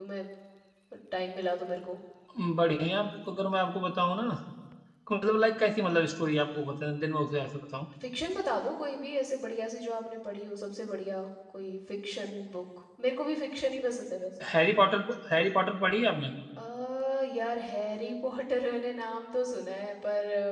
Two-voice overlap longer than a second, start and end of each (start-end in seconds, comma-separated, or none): none